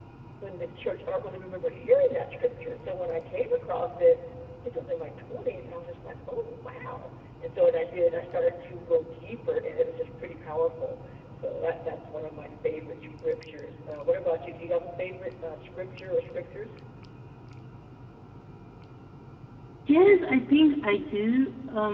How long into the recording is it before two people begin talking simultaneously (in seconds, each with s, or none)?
none